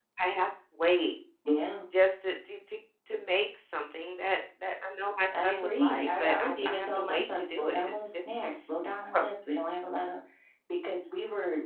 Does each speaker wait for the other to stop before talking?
No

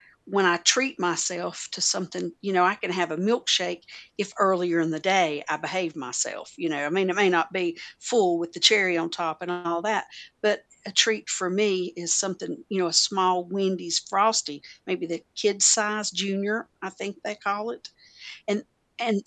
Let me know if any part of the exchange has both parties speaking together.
No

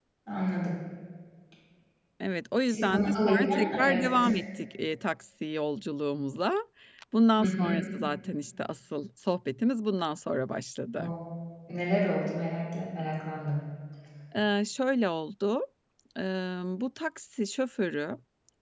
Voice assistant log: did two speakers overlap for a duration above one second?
Yes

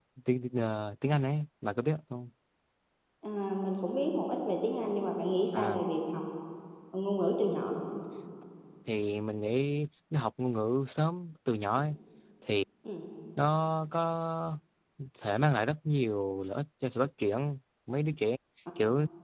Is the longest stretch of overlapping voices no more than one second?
Yes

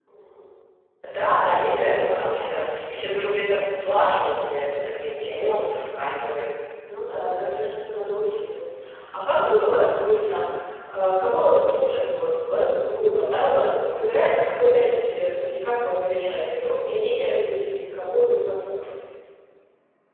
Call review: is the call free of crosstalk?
Yes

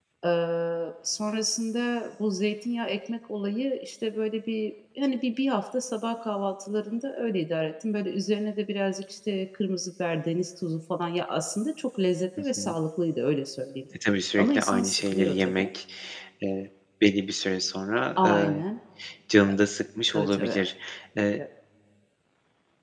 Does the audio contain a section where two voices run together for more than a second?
Yes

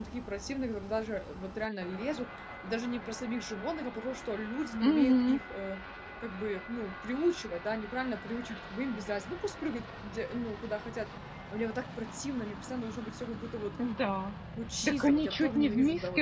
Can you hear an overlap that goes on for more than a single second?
Yes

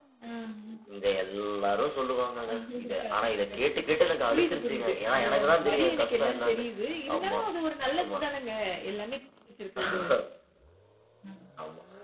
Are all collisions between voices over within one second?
No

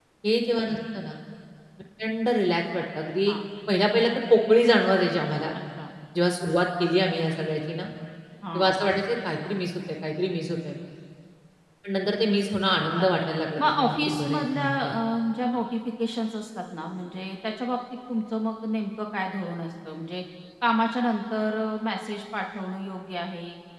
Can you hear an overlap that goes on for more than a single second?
Yes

